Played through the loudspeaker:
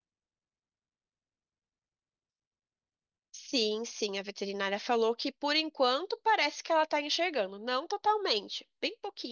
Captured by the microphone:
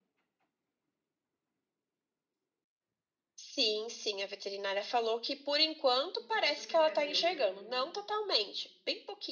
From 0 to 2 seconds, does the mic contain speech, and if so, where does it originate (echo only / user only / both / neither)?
neither